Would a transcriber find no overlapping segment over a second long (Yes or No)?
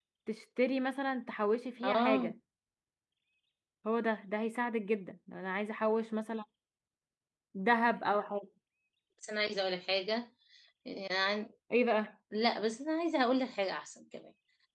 Yes